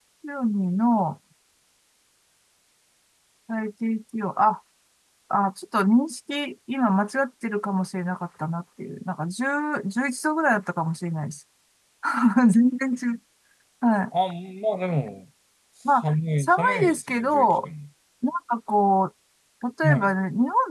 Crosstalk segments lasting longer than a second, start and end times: 16.0-17.7

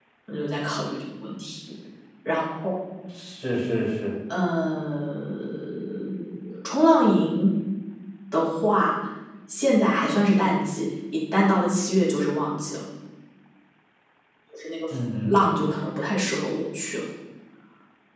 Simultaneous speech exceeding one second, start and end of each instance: none

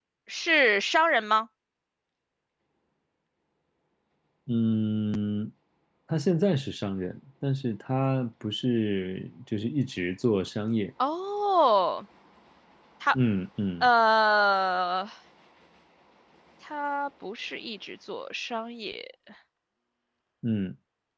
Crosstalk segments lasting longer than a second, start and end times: none

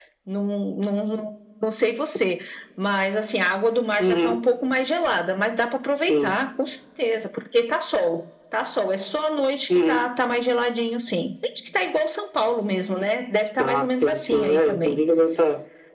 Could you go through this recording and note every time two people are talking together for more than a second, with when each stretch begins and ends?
13.6-15.0

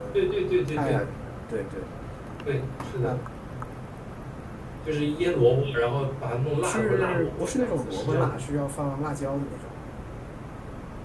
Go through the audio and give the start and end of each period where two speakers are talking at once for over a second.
6.6-8.5

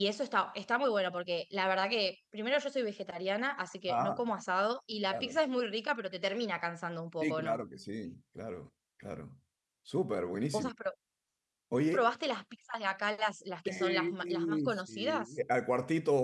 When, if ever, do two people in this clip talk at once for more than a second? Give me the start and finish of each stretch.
13.7-15.2

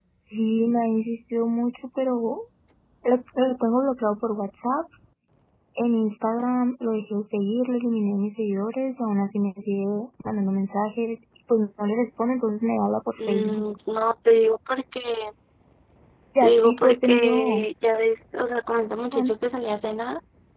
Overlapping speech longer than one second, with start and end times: 16.4-17.7

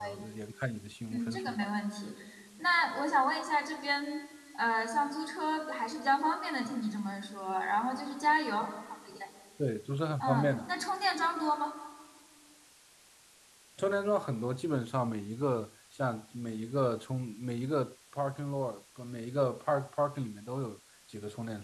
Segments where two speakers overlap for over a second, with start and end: none

